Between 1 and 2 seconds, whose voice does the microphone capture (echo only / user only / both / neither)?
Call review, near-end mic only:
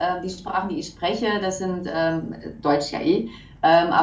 user only